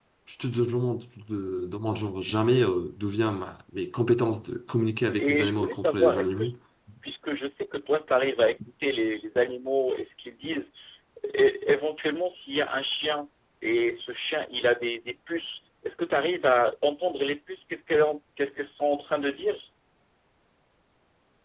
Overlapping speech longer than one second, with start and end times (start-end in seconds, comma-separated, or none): 5.2-6.4